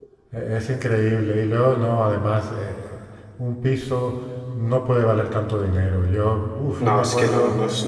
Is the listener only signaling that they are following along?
No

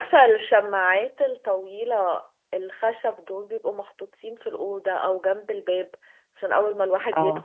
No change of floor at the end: Yes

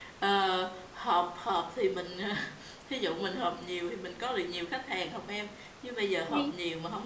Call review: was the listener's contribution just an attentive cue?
Yes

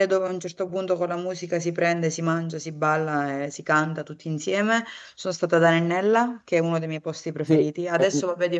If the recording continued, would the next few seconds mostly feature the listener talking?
No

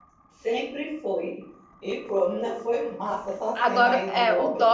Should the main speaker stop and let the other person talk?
Yes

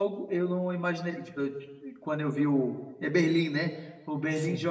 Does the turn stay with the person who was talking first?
Yes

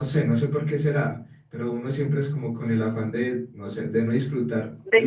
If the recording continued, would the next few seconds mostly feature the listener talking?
No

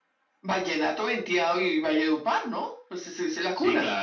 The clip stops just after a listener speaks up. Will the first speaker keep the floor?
No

